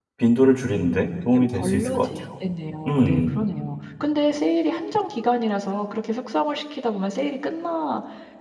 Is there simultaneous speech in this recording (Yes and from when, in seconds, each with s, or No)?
Yes, from 0.8 s